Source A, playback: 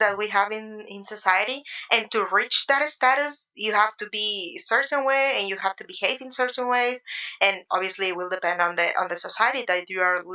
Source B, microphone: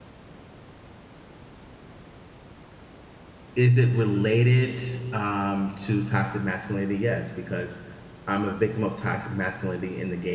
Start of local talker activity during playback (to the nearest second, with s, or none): 4 s